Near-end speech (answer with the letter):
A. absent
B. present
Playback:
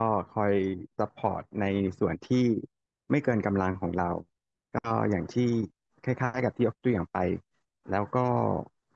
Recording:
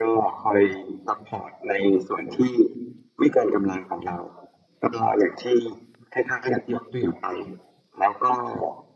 A